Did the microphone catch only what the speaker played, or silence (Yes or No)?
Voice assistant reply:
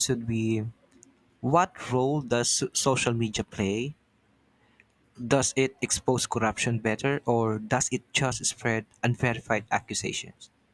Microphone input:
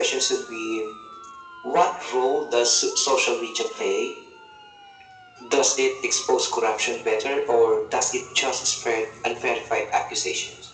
Yes